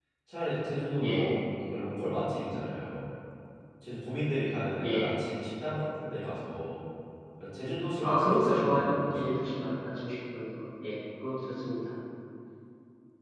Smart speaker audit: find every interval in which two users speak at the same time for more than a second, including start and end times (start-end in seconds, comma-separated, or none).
8.0-9.4